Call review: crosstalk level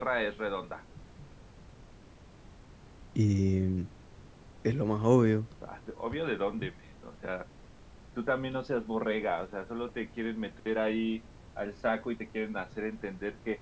none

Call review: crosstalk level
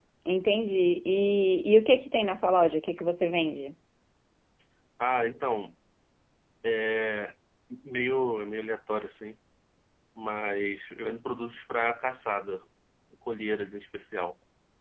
none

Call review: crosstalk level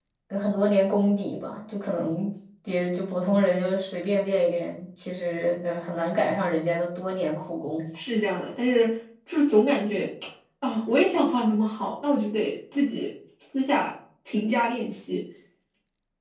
none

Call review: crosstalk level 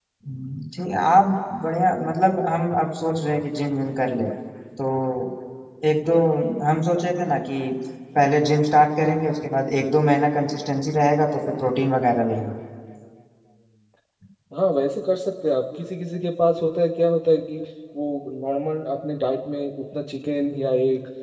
none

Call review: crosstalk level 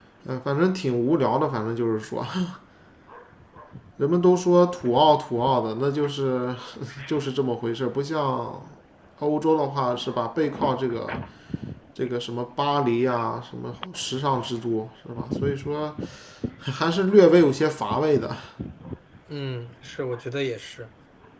none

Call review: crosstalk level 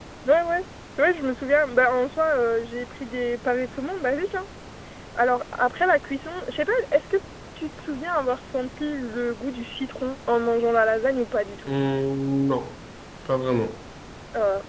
none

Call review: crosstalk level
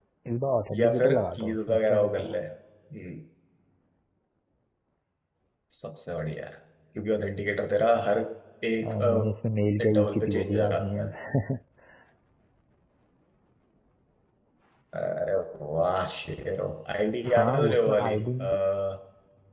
present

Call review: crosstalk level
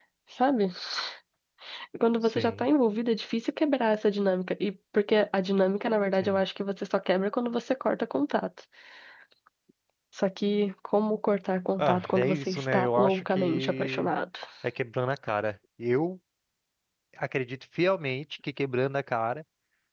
present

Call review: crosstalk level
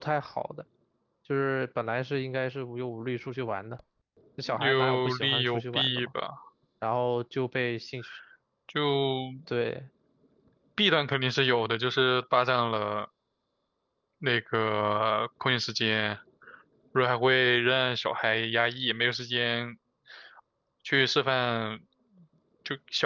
present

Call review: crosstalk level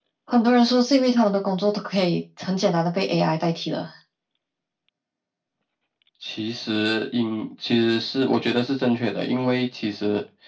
none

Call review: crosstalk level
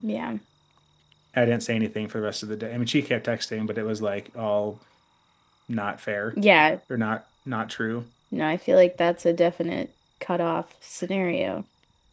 none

